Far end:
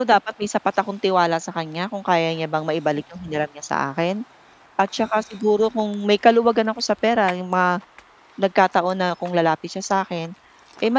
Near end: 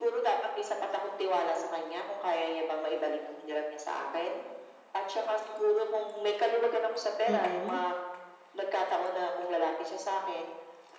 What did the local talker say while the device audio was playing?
Mm.

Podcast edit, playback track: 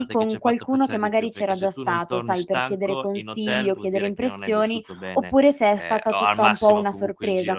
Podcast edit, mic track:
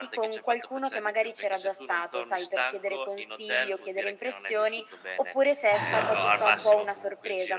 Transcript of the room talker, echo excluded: Esatto.

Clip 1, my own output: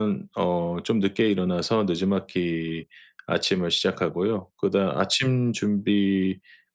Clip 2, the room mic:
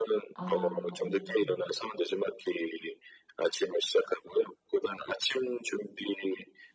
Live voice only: 아 오 네네.

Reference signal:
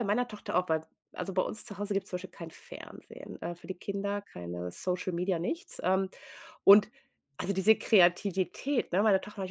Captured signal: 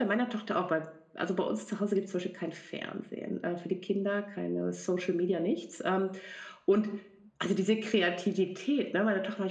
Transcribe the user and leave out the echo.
none

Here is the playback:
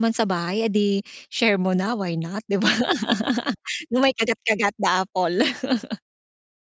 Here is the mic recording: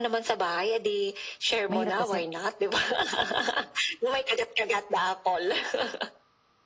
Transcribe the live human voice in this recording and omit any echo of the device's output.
mahirap kasi

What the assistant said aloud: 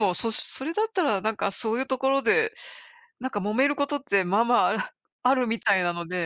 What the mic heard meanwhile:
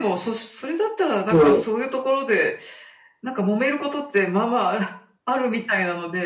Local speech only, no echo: そう。

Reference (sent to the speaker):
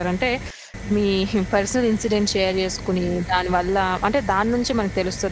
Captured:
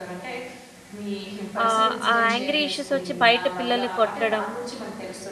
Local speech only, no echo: ఆహ్, ఆ యాంగ్రీ ఇష్యూసొచ్చి బయట పిల్లల్ని కొట్టడం,

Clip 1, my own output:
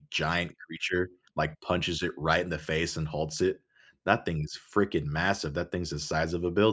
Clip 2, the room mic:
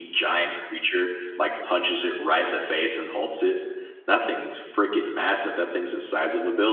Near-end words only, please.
none

